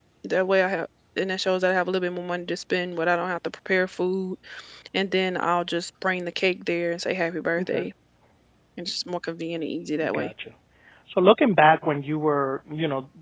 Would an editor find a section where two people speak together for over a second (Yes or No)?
No